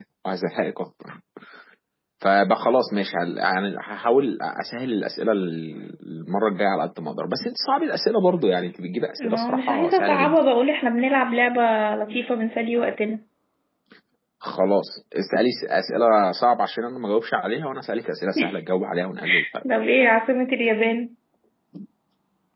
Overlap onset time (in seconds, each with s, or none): 9.2 s